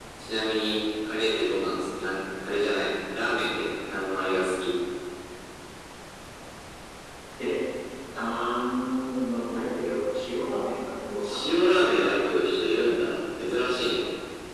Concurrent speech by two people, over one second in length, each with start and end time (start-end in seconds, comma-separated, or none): none